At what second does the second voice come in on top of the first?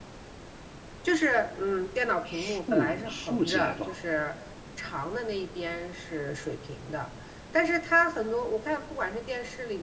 2.2 s

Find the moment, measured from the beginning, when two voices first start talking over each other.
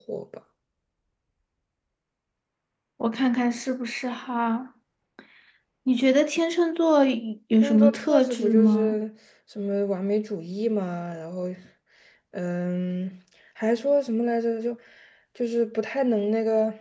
7.6 s

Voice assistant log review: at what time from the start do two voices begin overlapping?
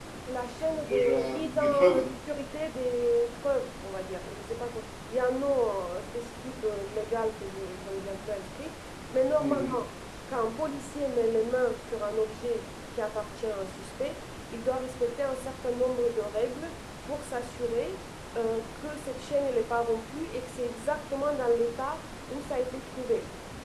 0.8 s

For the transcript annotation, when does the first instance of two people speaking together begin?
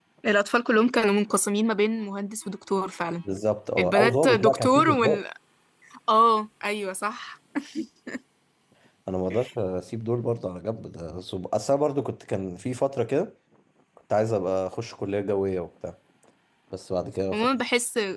3.8 s

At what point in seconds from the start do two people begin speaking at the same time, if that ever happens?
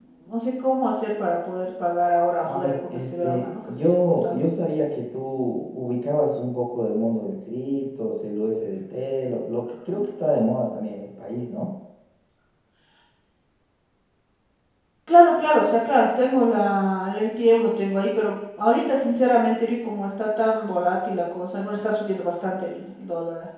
2.4 s

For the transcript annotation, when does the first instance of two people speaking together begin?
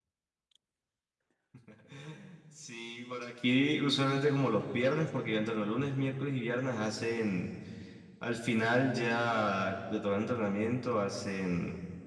none

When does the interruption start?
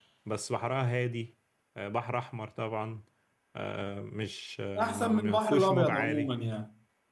4.8 s

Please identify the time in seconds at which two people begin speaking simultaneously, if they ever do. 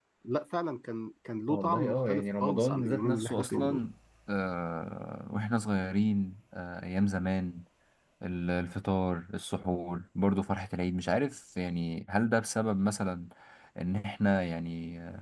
1.5 s

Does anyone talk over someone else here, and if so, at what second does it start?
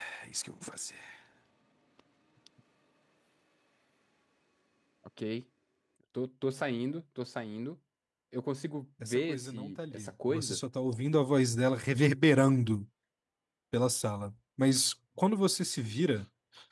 9.0 s

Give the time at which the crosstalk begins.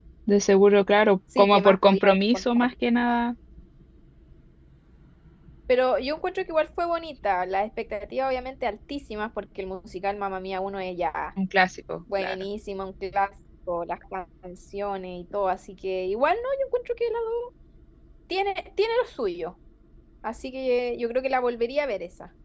1.4 s

